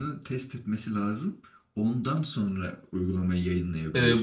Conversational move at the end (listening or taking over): taking over